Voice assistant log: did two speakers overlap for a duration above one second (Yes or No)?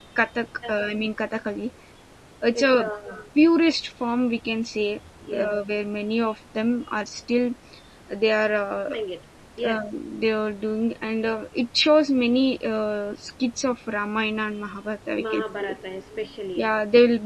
No